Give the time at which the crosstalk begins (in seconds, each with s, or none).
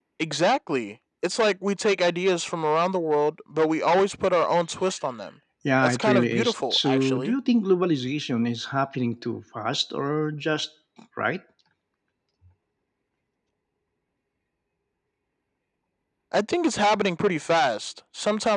5.8 s